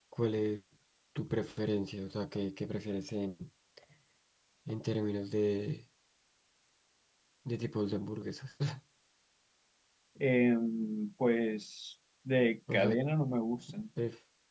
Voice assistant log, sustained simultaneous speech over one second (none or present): none